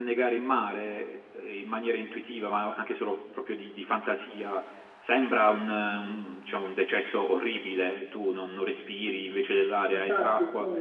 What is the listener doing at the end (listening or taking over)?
listening